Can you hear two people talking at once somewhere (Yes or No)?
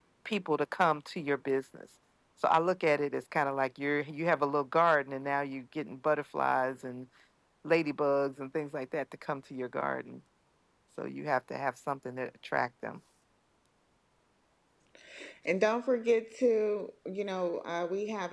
No